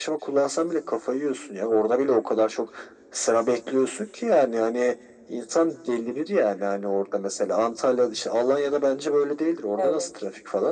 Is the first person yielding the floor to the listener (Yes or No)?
Yes